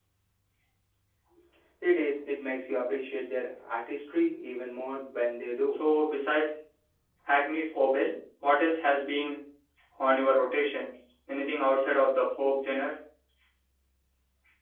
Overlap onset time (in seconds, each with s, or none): none